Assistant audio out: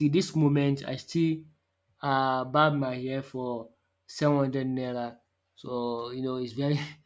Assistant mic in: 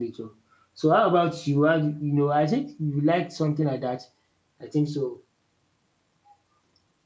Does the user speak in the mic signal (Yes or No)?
Yes